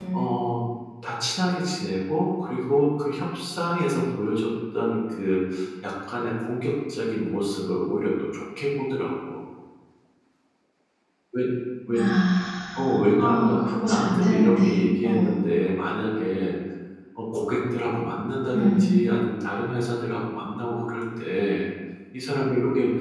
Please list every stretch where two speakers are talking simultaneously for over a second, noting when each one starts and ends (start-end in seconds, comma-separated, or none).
12.8-15.3